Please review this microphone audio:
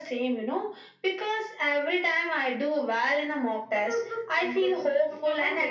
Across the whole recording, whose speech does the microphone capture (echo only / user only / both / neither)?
both